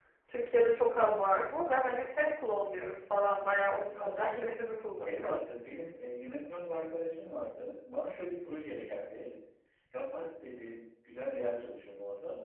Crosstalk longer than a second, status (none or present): none